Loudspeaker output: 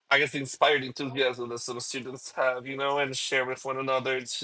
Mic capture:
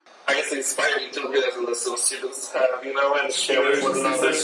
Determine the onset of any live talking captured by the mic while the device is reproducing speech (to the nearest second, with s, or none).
3 s